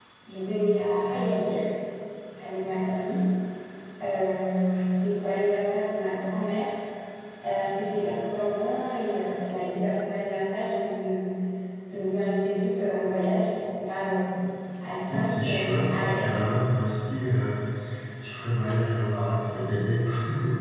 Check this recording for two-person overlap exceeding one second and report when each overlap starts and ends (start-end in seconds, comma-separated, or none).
15.1-16.4